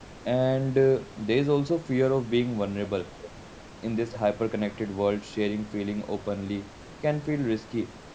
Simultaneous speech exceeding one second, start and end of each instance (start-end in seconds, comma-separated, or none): none